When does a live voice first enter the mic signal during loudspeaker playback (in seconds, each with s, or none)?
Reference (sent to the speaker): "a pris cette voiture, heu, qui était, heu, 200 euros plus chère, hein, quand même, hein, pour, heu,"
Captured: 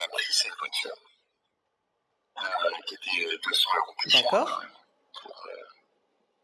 4.1 s